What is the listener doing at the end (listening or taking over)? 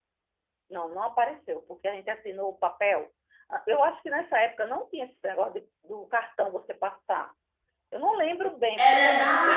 taking over